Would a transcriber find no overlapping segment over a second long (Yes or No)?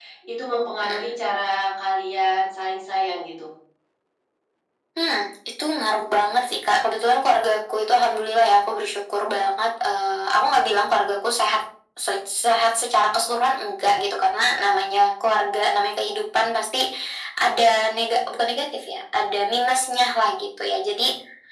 Yes